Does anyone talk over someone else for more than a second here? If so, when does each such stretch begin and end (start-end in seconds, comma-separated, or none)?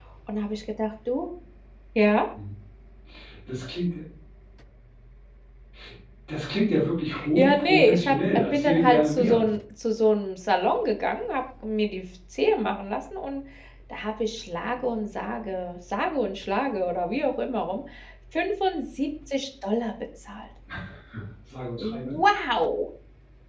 7.4-9.5